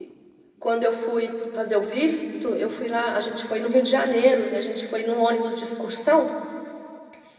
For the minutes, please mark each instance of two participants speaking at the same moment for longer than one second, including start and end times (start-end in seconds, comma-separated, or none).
none